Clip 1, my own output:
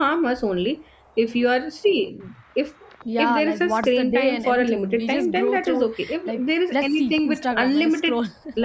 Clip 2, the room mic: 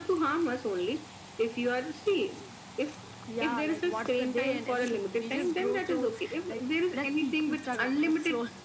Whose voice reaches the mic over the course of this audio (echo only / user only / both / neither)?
echo only